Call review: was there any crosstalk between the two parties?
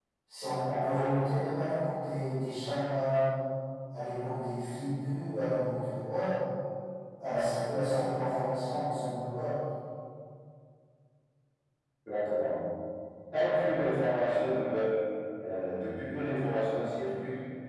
No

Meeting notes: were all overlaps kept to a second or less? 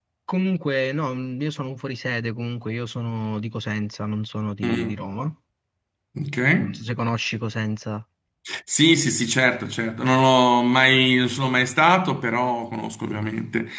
Yes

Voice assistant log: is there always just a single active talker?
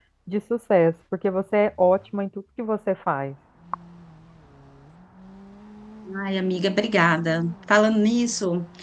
Yes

